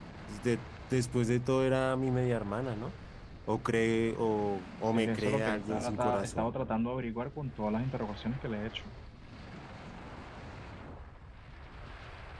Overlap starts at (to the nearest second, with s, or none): 5 s